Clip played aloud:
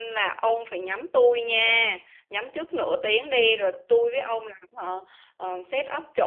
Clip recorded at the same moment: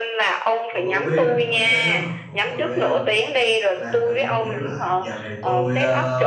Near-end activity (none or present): present